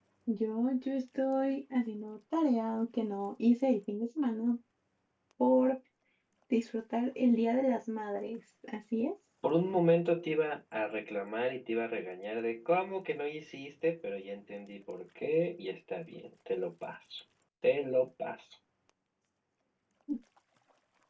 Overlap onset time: none

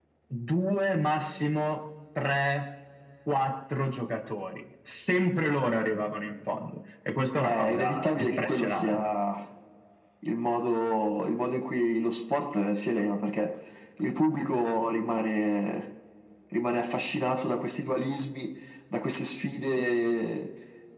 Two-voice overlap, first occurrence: 7 s

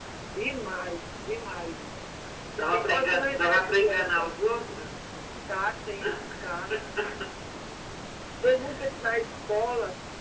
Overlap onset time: 3 s

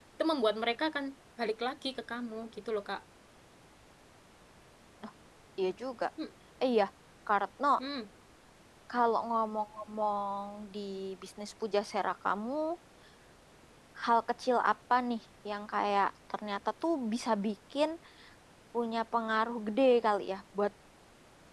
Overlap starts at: none

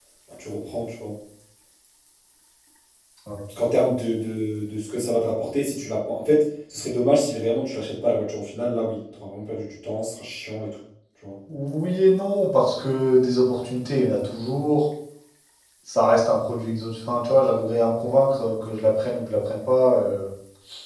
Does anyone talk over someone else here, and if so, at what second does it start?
none

